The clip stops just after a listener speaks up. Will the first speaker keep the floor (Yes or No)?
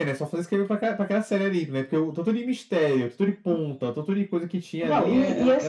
No